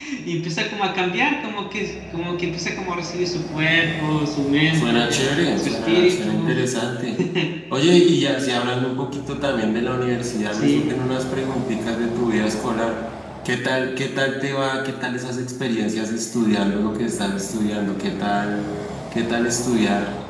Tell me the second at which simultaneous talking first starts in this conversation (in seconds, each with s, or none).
4.7 s